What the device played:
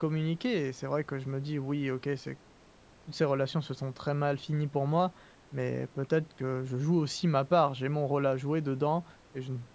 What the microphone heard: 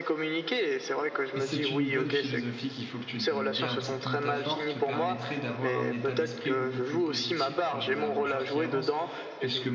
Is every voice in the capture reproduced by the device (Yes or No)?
No